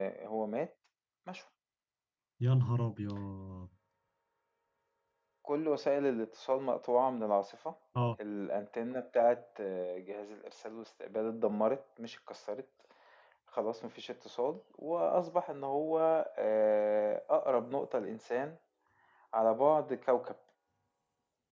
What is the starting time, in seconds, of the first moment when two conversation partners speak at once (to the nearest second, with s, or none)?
none